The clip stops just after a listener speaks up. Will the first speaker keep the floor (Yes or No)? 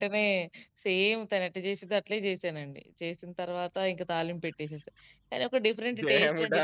No